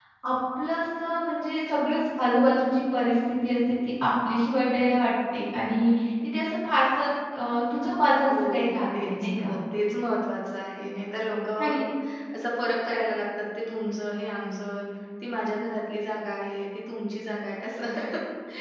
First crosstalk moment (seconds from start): 8.2 s

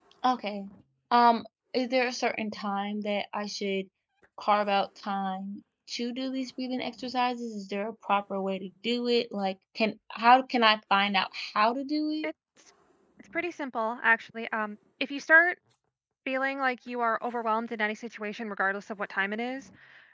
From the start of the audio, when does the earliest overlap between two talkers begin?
none

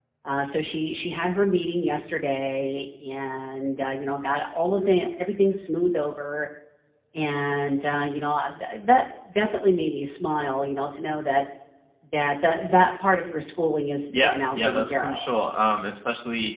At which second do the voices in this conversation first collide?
14.1 s

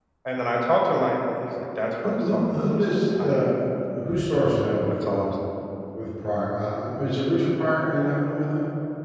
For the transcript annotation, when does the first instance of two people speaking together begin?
2.0 s

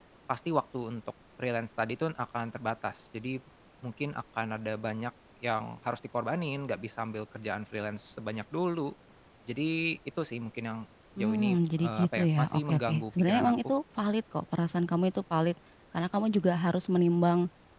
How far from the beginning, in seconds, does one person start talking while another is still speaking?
11.2 s

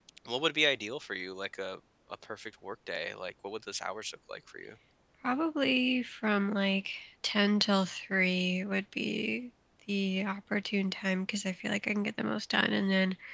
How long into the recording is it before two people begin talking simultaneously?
none

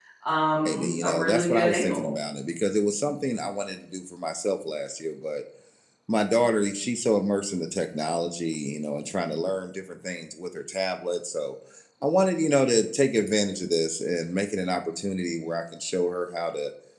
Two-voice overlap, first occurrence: 0.6 s

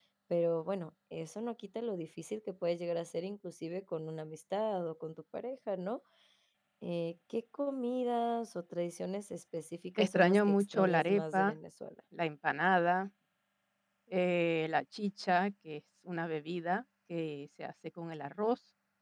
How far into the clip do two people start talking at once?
10.0 s

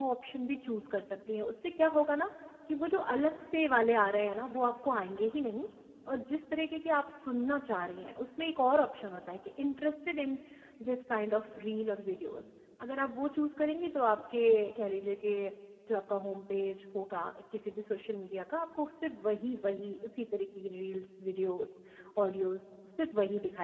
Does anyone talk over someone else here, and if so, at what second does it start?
none

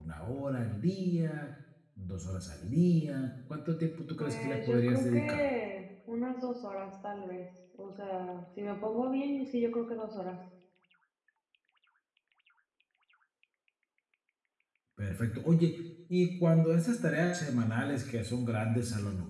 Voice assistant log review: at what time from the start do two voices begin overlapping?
4.2 s

